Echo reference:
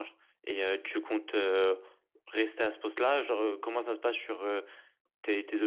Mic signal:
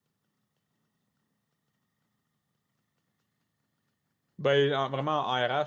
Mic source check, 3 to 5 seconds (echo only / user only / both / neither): user only